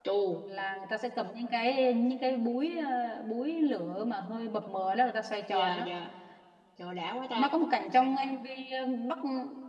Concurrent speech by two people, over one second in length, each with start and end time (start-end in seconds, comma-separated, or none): none